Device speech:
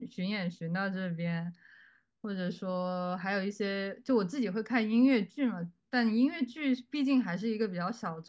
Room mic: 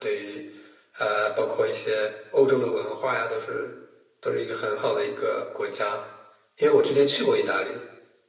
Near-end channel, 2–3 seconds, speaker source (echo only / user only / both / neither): user only